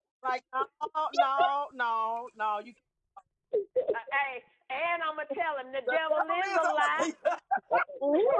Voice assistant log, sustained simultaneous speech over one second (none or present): present